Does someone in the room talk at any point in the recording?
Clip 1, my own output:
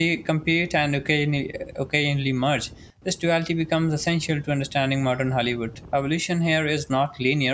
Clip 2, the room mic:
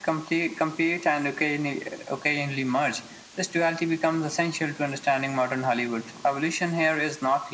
No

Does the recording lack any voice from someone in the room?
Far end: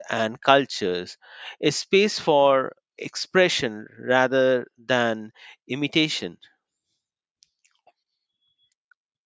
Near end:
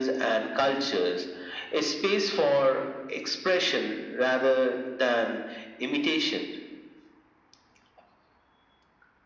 Yes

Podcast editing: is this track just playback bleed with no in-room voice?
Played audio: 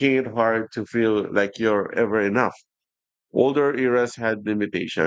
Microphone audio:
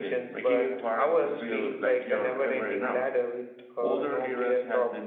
No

